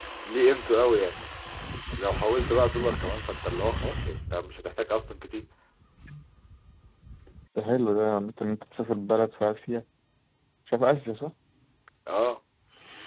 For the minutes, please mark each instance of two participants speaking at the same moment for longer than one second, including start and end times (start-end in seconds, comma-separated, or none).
none